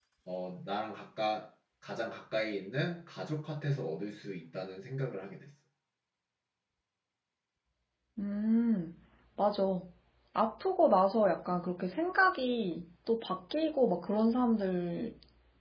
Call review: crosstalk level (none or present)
none